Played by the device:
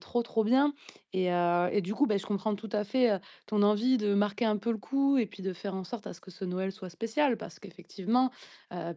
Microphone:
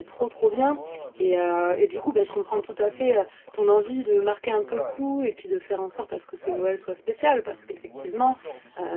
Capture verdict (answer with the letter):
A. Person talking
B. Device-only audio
A